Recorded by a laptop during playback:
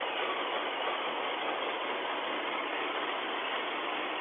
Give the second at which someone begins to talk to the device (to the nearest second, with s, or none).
none